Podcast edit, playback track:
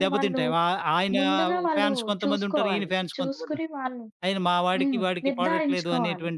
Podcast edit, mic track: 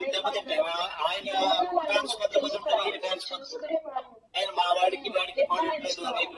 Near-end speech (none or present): none